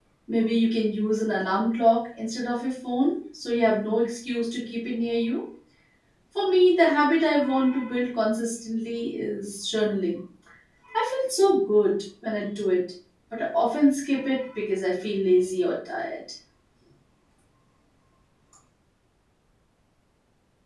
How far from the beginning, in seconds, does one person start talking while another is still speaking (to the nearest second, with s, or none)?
none